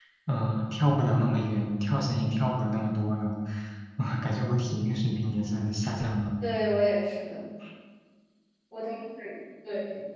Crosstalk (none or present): none